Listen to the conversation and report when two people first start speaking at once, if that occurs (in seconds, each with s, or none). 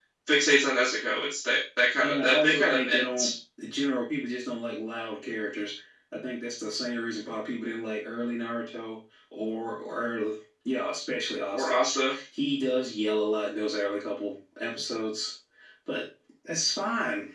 2.0 s